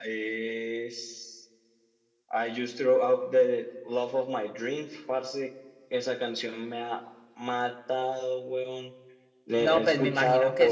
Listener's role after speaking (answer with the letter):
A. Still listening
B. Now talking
B